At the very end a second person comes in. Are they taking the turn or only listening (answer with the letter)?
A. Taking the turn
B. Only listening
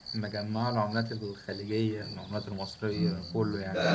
A